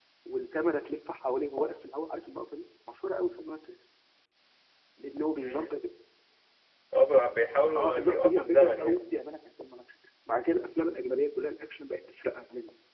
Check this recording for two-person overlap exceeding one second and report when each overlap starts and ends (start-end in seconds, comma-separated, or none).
7.7-9.0